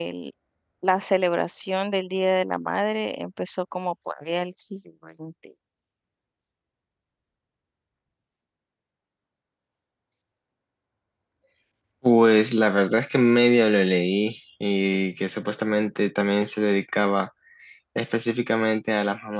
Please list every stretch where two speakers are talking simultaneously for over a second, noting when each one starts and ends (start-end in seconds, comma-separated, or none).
none